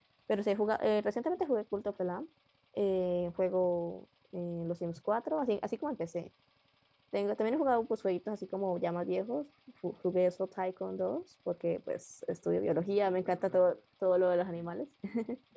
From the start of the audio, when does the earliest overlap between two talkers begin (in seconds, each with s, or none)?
none